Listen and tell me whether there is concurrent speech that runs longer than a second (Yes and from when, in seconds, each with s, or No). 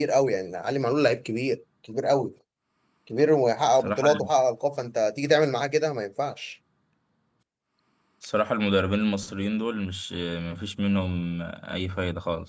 No